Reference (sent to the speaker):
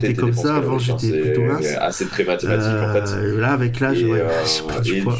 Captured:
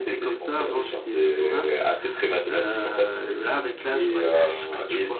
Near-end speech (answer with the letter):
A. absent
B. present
A